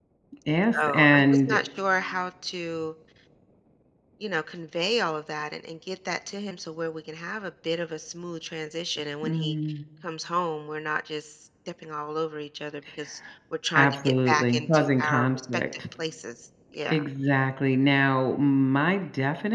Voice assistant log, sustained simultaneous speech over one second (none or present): present